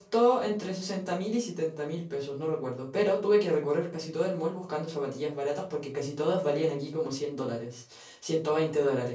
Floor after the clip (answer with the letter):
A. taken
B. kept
B